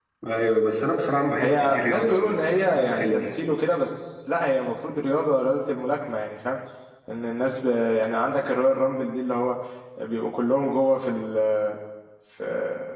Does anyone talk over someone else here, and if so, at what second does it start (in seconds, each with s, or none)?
1.4 s